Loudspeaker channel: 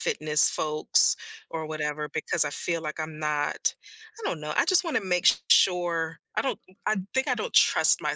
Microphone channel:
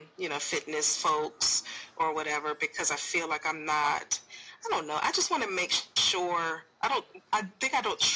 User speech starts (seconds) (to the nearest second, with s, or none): none